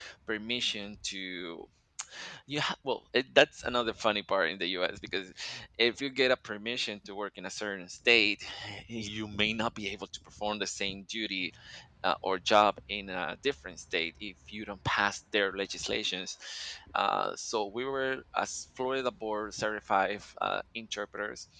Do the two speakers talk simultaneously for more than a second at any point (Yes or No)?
No